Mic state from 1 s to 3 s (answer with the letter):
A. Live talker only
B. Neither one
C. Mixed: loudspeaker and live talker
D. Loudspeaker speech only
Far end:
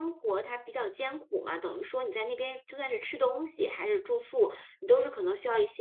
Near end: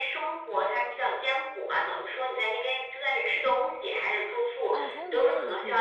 D